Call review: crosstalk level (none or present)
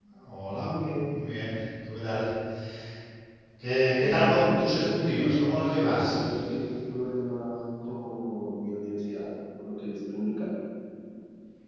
present